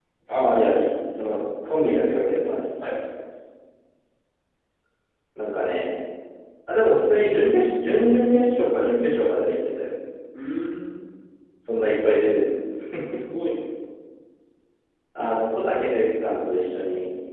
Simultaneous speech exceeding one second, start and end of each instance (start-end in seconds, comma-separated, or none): none